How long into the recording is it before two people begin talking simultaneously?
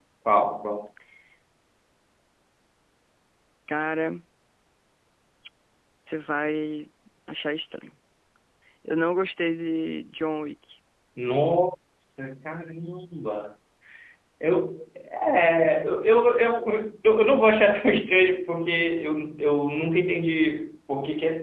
none

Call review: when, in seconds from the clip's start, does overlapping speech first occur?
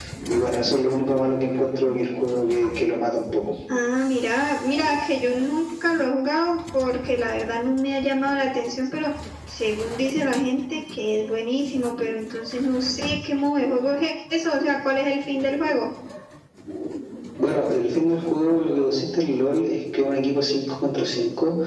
none

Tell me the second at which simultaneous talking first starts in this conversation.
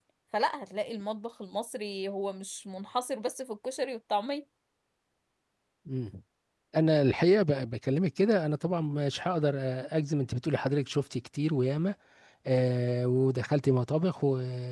none

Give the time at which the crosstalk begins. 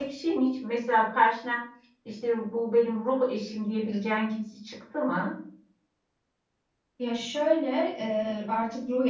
none

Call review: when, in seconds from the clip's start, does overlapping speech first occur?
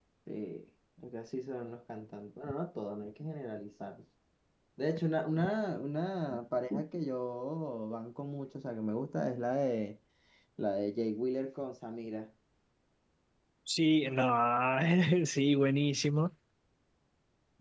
none

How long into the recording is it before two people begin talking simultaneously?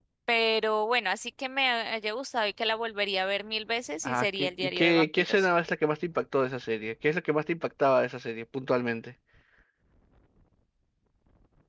4.0 s

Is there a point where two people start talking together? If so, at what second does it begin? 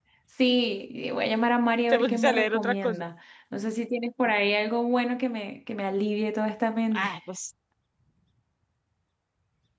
1.8 s

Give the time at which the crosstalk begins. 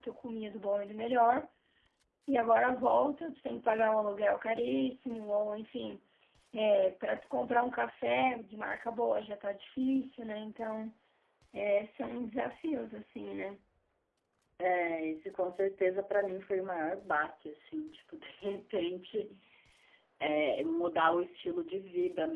none

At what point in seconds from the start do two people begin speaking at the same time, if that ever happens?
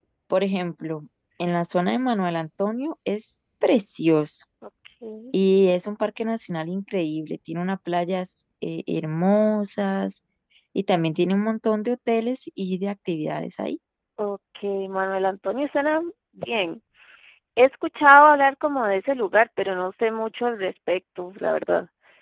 none

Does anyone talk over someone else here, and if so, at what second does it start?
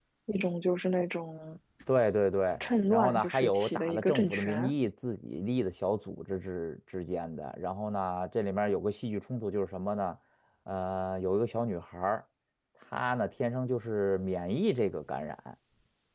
2.9 s

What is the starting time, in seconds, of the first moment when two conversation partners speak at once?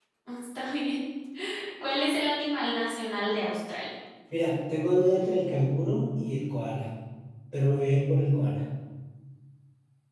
none

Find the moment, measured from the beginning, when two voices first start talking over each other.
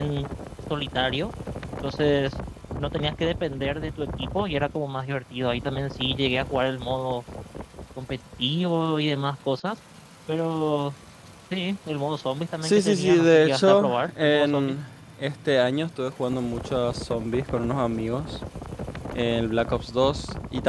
12.6 s

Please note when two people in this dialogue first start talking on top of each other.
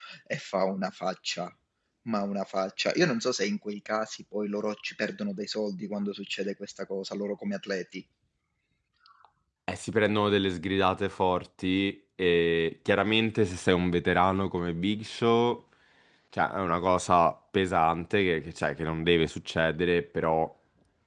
none

